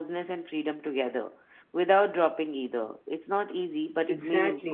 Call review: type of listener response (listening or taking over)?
taking over